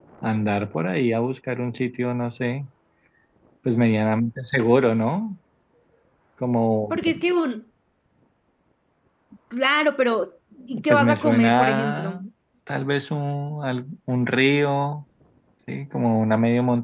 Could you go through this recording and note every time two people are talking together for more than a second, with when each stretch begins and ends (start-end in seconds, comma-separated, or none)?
10.9-12.2